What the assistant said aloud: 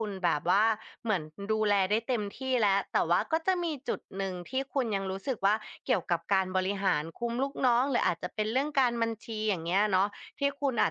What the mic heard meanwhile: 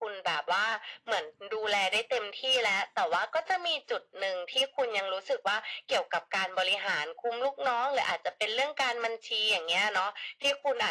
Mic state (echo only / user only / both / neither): echo only